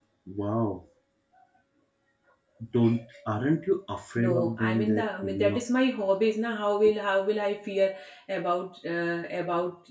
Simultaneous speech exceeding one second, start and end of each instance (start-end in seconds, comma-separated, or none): 4.2-5.6